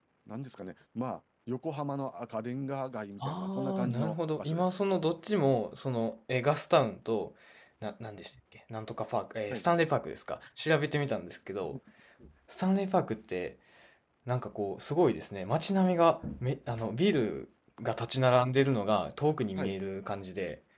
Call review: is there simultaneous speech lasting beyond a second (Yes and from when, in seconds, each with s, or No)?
Yes, from 3.2 s